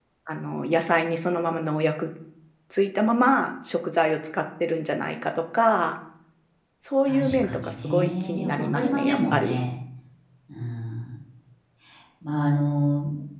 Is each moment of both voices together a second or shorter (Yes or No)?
No